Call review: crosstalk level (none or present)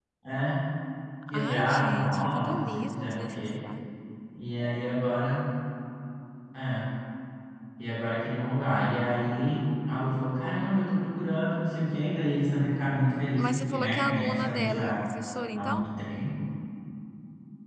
present